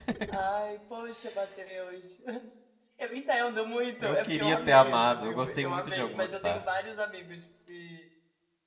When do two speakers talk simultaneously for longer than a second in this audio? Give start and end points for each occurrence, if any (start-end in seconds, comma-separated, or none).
4.0-6.6